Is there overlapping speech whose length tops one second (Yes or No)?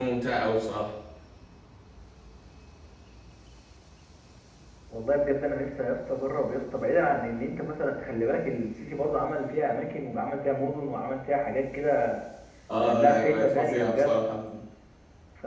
Yes